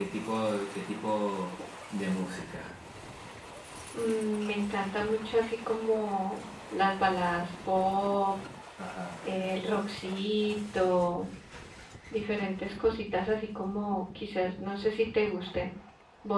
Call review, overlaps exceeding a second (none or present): none